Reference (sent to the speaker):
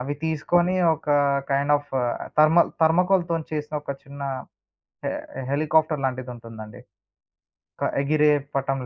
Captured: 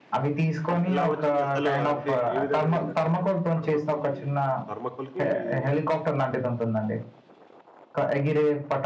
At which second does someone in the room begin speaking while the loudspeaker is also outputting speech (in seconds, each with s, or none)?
0.9 s